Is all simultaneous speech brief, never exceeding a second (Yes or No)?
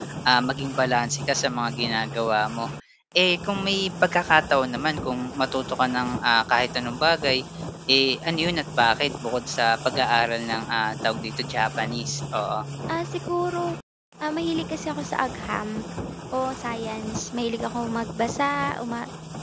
Yes